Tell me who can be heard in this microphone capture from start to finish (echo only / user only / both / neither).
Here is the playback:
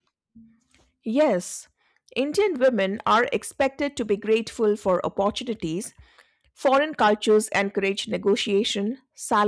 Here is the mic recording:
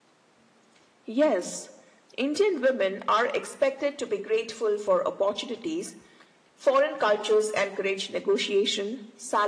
echo only